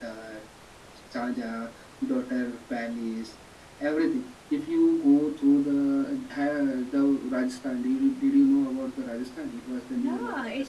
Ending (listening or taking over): taking over